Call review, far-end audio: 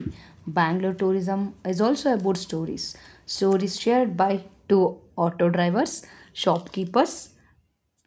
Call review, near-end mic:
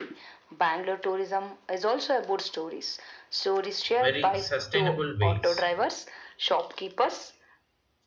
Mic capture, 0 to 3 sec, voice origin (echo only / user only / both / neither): echo only